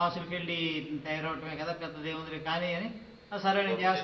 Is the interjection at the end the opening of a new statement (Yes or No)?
Yes